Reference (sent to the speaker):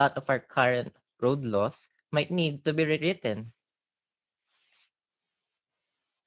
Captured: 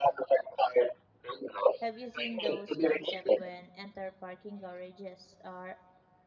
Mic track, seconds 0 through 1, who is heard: echo only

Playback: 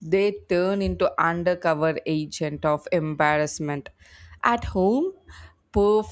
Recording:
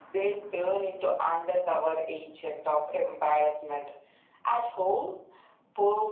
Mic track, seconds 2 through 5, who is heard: echo only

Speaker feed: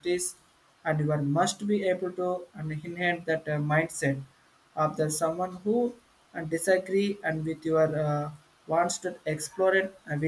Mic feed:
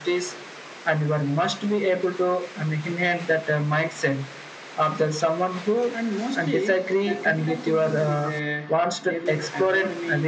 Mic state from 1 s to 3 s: echo only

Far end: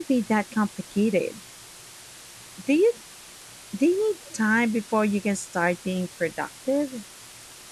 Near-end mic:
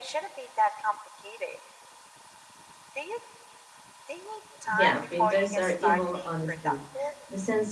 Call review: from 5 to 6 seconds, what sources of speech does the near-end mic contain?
both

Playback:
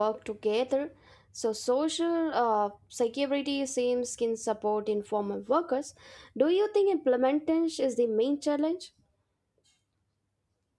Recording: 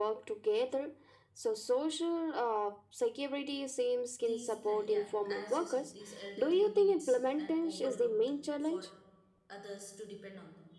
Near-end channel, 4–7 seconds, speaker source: both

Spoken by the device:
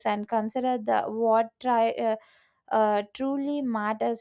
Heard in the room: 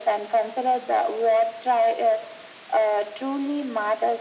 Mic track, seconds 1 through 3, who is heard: echo only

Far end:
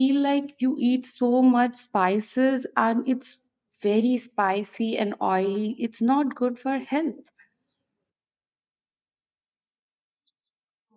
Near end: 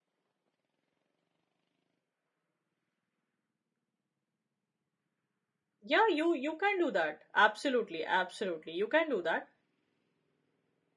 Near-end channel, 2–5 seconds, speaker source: neither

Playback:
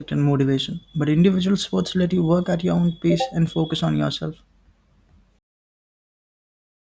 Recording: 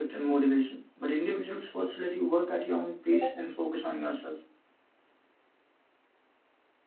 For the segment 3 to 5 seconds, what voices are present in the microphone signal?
echo only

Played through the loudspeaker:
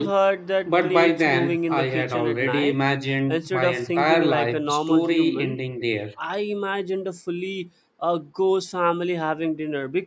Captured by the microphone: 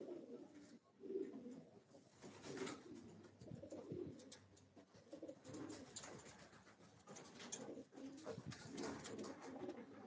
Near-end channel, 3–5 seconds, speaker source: neither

